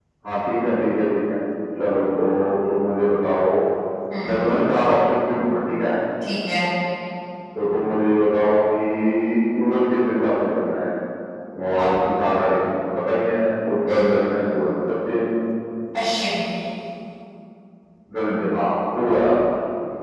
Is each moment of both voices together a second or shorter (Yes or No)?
Yes